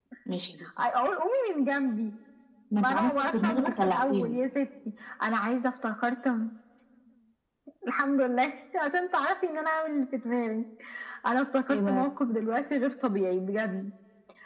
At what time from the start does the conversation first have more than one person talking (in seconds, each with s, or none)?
2.8 s